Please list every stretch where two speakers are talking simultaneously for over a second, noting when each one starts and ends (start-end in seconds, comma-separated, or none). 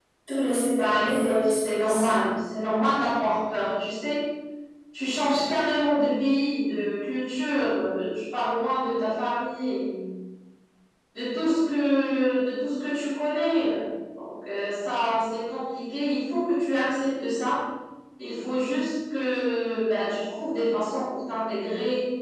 0.8-2.2